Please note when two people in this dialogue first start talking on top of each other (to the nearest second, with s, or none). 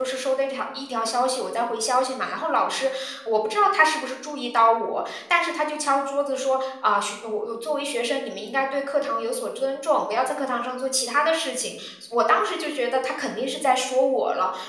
none